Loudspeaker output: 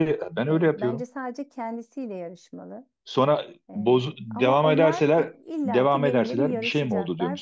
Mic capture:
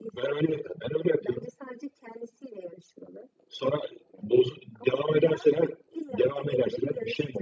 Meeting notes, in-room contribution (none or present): none